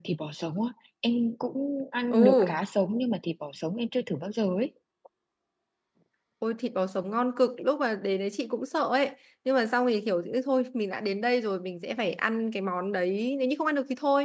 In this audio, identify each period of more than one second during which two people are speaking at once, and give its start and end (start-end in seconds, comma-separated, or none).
none